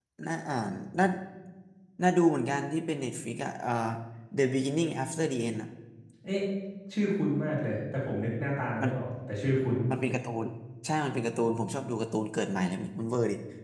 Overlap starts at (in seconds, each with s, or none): none